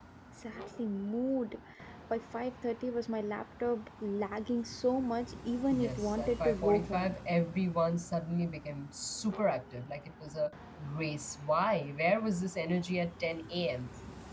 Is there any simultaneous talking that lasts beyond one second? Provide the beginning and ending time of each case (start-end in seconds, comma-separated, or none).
5.8-7.2